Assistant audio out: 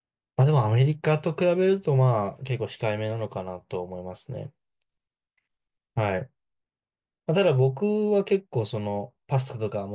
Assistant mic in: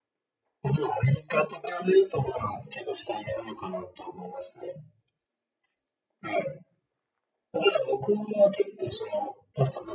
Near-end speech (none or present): none